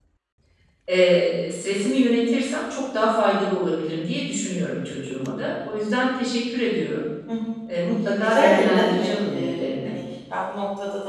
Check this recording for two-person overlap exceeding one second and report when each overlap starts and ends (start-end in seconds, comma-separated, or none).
8.2-9.9